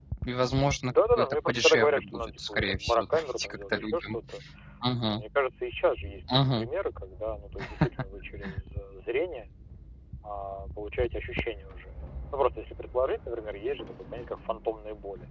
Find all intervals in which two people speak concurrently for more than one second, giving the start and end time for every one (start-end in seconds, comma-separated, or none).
0.8-4.2